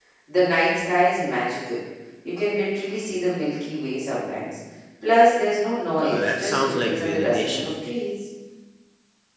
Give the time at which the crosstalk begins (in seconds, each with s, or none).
6.0 s